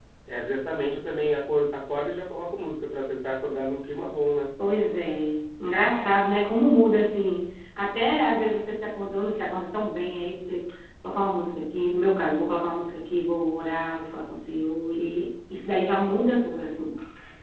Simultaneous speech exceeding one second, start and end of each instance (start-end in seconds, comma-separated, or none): none